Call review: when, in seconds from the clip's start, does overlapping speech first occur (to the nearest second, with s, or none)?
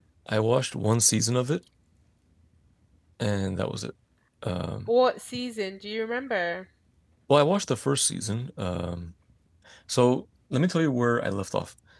none